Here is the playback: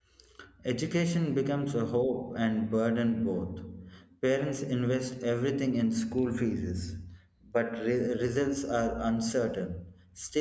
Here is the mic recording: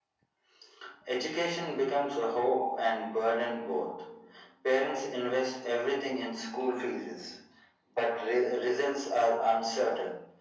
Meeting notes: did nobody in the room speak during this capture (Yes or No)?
Yes